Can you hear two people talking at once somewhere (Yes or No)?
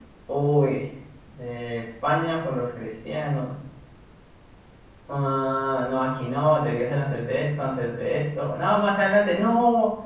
No